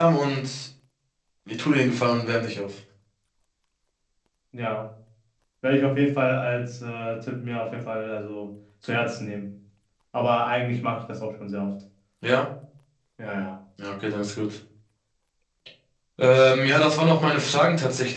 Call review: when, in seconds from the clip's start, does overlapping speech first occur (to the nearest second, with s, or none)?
none